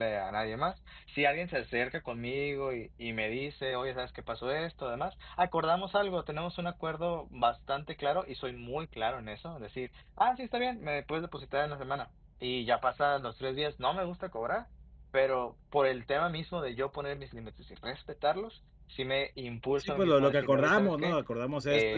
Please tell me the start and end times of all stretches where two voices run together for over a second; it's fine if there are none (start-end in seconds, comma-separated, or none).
19.8-21.2